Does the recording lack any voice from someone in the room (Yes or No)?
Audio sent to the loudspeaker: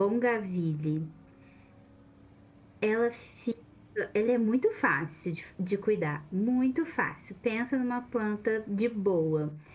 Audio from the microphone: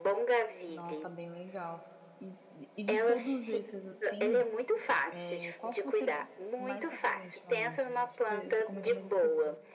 No